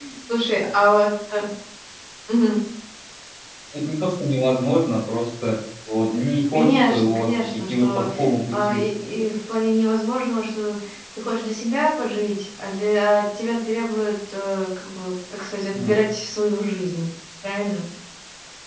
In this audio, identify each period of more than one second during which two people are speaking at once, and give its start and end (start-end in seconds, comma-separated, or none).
6.5-8.1